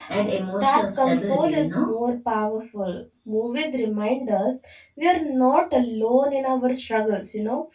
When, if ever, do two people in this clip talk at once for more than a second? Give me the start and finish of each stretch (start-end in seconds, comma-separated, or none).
0.6-1.9